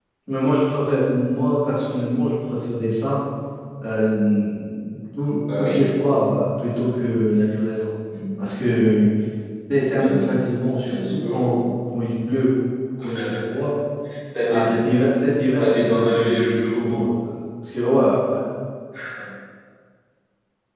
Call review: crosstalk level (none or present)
present